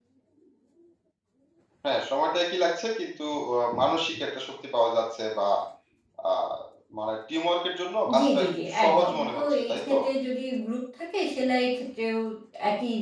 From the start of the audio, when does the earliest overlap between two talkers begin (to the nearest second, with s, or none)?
8 s